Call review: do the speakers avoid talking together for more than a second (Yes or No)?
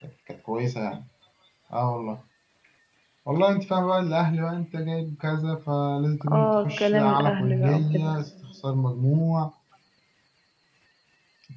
No